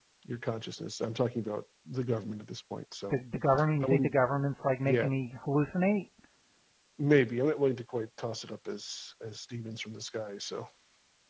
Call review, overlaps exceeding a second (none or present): none